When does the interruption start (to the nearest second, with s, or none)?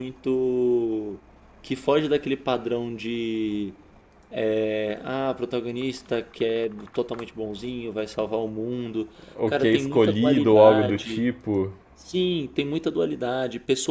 9 s